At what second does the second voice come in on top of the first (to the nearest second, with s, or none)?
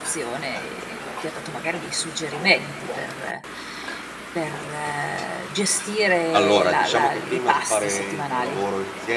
6 s